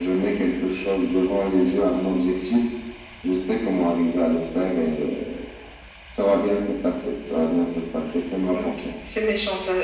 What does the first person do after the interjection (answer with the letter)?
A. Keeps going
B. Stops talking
B